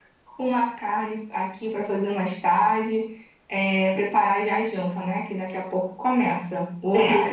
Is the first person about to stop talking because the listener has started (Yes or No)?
Yes